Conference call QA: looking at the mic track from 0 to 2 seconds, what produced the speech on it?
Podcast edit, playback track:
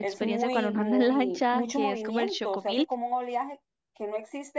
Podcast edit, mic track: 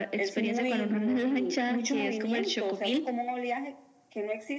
echo only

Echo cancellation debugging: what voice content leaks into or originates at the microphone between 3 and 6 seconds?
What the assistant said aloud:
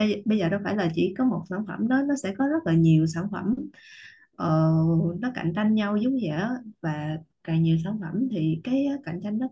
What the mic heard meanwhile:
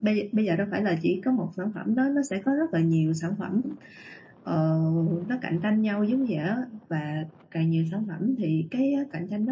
echo only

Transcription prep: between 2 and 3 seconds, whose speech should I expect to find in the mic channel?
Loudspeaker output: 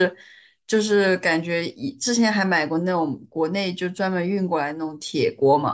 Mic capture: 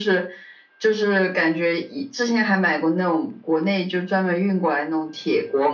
echo only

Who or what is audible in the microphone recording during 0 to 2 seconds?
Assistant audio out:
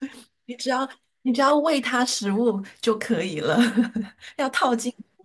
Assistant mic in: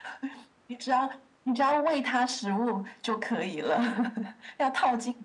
echo only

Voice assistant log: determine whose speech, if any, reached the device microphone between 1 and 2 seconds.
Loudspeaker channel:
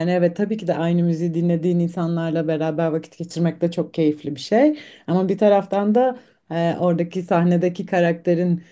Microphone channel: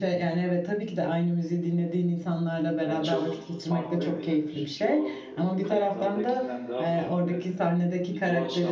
echo only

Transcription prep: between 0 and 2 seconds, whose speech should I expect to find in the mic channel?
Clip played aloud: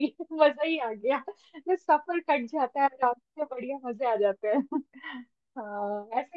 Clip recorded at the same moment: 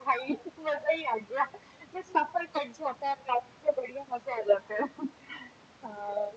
echo only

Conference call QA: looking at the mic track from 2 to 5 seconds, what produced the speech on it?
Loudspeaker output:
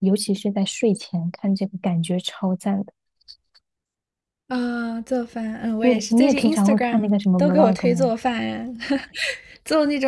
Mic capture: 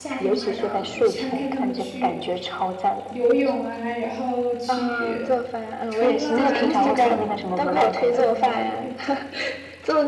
both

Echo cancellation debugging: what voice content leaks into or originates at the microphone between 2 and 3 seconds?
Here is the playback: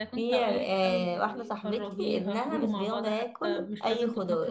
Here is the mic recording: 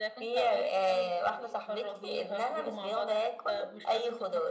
echo only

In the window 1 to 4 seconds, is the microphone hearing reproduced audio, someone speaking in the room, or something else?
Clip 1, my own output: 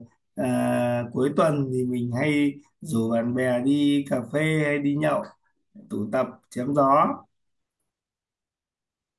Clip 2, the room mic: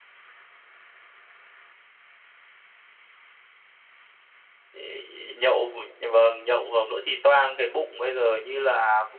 neither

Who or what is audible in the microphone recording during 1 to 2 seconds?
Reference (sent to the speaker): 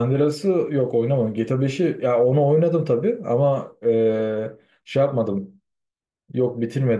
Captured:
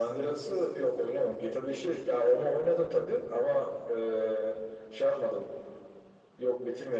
echo only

